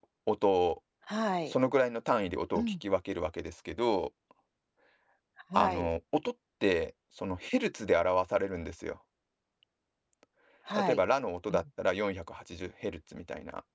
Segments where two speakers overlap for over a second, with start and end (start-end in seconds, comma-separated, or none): none